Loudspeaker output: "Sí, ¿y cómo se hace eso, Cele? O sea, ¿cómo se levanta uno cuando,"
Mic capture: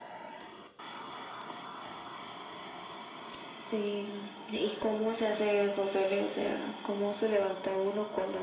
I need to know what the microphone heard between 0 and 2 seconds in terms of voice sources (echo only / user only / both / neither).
neither